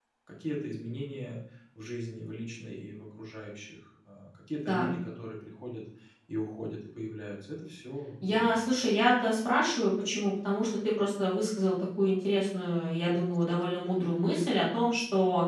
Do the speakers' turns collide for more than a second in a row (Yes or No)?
No